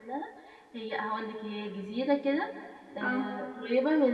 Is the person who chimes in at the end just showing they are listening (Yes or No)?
Yes